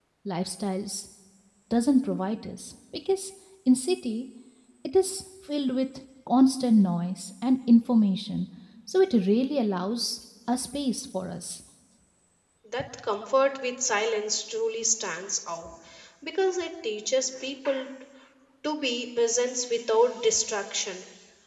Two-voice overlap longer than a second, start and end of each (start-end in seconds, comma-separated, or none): none